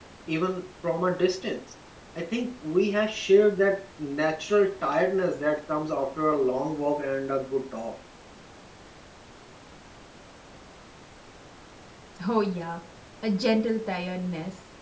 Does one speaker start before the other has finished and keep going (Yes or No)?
No